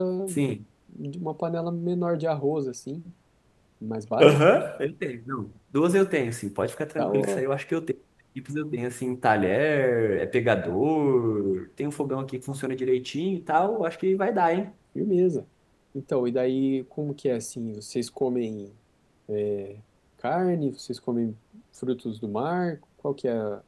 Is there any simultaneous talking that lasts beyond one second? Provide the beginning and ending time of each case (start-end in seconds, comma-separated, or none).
none